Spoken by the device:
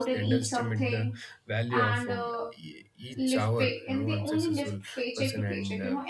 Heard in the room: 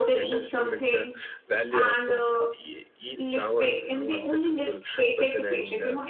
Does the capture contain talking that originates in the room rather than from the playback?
No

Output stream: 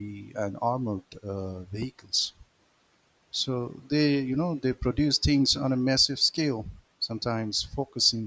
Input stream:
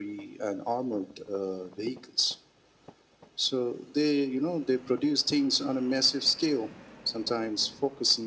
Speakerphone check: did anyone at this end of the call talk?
No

